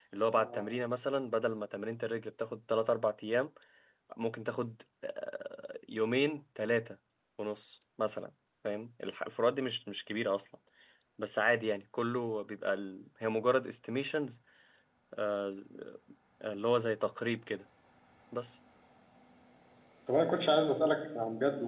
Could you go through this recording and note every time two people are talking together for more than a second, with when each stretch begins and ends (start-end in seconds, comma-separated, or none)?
none